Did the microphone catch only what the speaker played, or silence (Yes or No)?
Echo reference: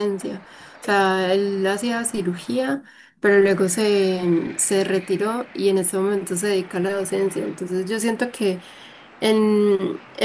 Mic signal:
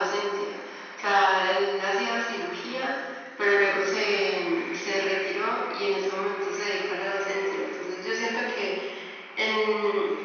Yes